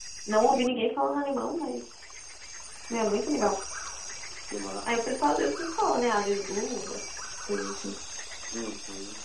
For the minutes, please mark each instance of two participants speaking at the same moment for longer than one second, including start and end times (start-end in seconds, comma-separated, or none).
none